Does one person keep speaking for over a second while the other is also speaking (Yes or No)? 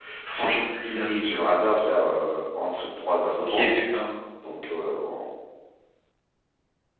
No